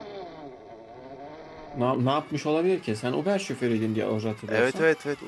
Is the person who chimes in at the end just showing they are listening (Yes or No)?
No